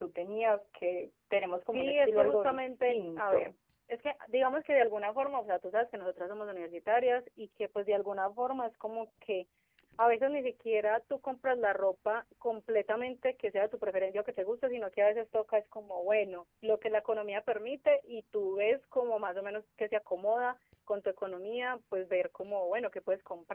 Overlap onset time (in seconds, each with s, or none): 1.7 s